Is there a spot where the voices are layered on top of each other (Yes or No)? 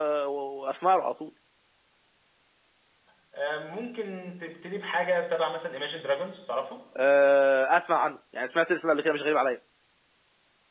No